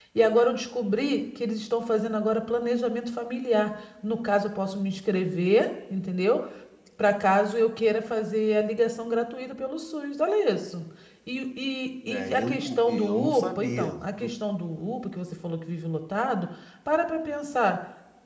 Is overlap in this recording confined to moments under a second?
No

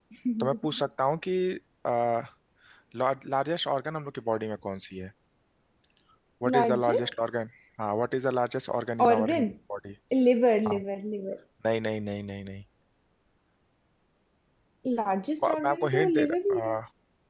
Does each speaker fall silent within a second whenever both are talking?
No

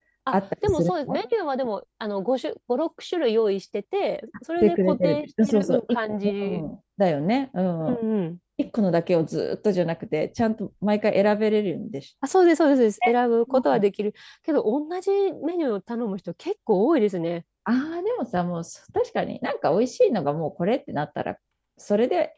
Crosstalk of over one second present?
Yes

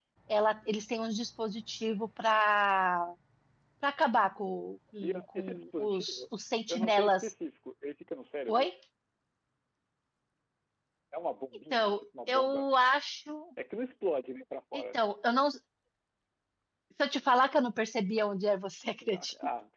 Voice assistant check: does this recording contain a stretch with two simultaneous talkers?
Yes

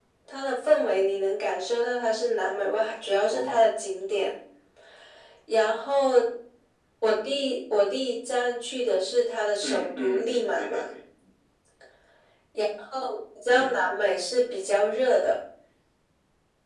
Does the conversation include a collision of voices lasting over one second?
Yes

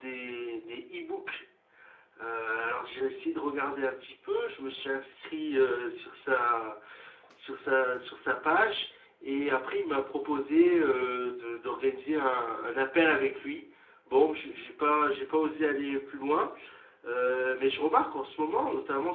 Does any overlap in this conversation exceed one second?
No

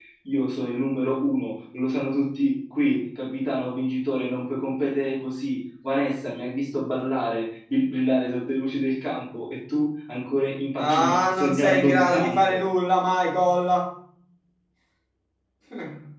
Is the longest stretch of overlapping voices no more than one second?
No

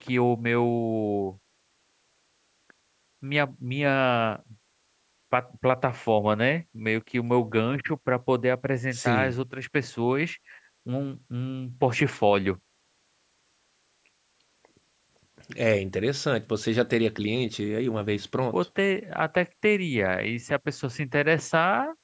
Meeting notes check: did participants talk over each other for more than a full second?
No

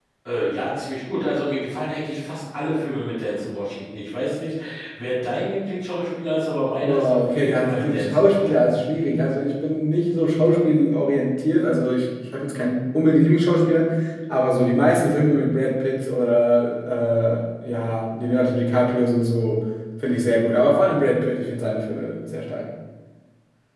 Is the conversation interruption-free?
No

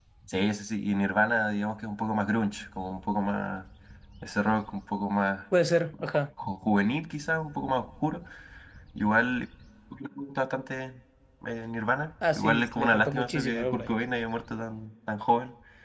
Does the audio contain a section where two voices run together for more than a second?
Yes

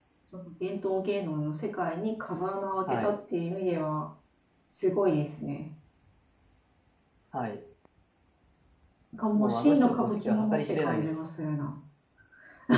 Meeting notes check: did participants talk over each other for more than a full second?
Yes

